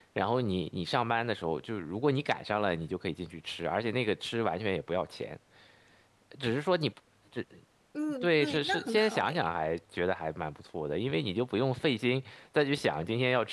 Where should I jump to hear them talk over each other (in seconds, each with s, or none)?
8.2 s